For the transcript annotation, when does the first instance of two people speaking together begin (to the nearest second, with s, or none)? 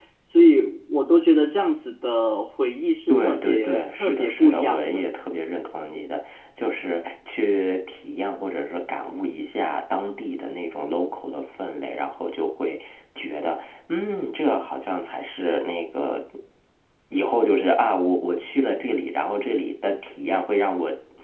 3 s